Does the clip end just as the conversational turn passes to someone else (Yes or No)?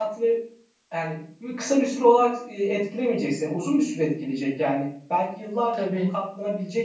No